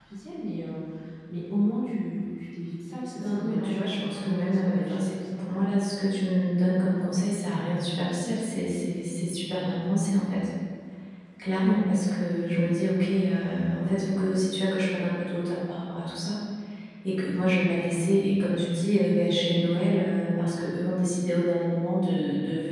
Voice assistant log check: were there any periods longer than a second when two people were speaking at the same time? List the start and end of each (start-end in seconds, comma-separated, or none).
3.2-5.7